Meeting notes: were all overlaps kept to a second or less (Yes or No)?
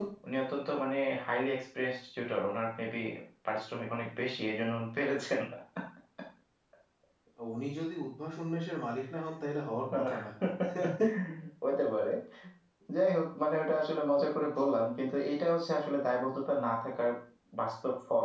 Yes